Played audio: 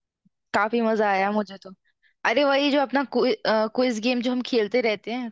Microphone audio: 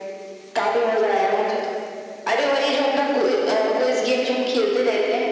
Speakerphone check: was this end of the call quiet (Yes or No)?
Yes